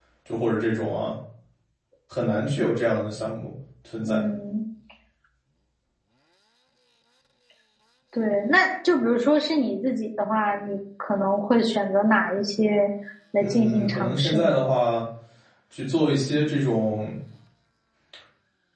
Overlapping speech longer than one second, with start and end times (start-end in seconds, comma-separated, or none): 13.4-14.7